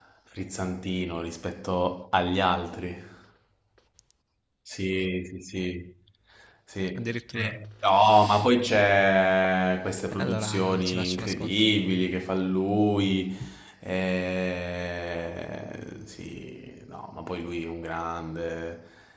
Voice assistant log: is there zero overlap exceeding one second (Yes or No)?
No